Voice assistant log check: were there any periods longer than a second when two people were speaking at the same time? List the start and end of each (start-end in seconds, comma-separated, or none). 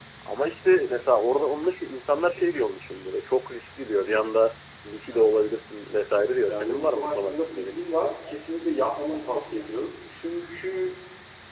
6.5-7.8